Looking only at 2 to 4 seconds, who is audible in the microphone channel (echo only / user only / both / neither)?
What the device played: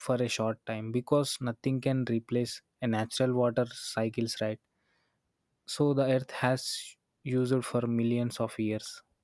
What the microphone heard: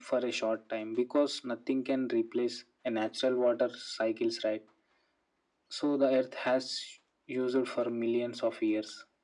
echo only